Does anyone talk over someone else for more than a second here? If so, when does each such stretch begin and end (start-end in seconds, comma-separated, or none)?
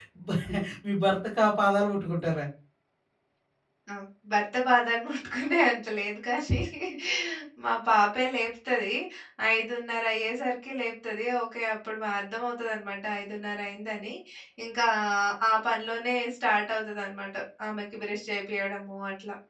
none